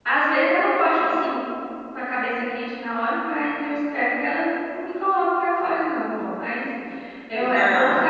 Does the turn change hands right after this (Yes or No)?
No